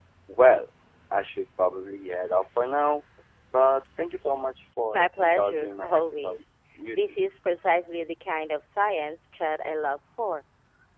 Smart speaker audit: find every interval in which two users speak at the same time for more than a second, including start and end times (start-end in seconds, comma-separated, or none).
4.9-6.4